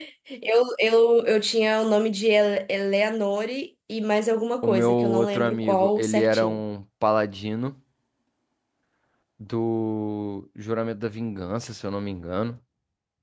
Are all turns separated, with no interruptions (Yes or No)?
No